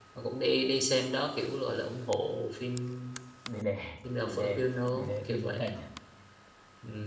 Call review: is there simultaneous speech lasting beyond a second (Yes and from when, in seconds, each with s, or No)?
Yes, from 4.2 s